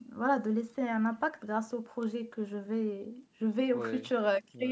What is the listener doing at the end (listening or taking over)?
listening